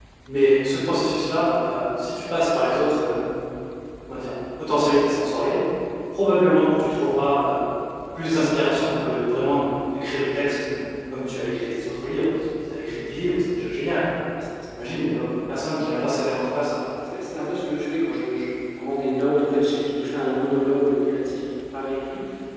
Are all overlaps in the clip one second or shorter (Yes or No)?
Yes